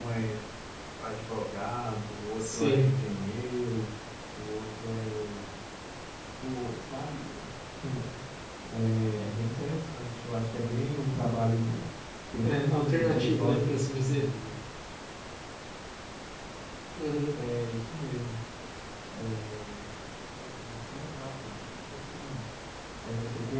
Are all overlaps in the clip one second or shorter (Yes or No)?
No